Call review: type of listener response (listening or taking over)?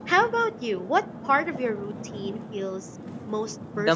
taking over